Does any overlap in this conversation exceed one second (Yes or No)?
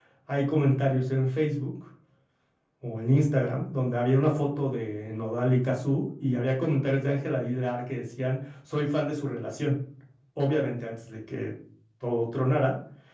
No